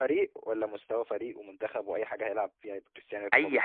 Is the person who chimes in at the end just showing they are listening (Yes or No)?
No